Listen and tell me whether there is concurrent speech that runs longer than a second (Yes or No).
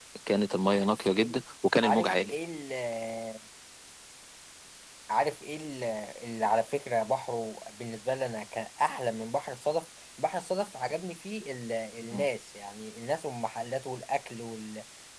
No